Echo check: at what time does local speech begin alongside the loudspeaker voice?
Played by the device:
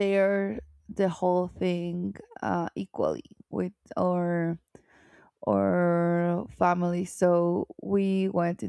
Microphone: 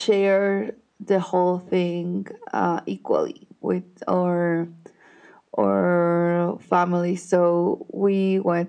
none

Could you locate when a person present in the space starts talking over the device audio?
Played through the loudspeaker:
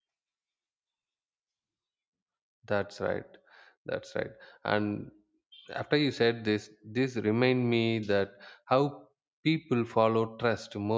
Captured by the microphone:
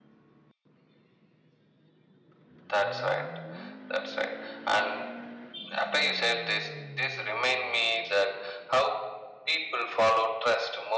none

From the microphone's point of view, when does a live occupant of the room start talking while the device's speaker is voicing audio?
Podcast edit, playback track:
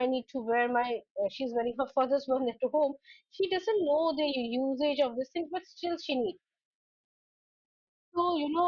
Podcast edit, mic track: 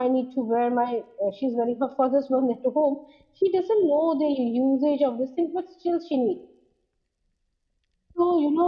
none

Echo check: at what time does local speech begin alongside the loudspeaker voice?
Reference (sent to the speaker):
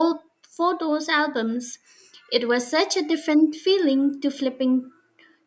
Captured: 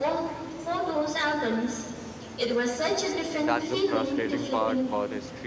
3.4 s

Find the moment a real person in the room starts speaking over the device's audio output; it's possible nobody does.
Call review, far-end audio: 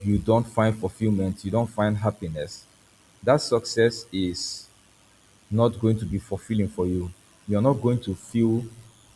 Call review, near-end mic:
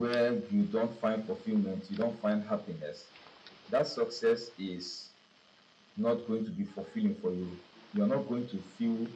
none

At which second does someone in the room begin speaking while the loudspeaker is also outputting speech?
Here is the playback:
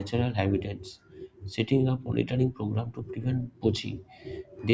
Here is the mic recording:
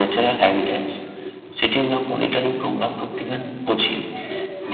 none

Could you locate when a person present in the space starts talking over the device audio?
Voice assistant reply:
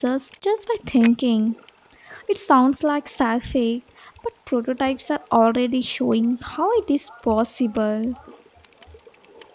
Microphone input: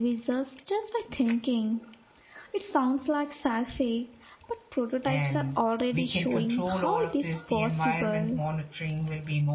5.0 s

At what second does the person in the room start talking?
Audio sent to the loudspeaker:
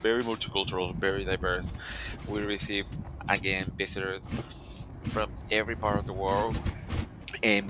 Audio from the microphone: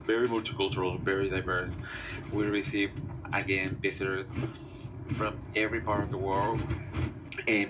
none

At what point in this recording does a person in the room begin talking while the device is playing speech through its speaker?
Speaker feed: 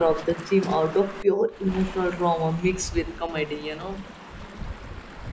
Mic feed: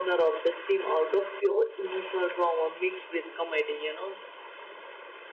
none

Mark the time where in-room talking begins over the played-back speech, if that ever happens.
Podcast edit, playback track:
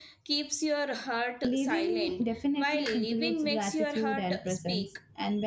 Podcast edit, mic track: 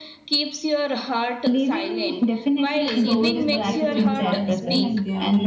2.9 s

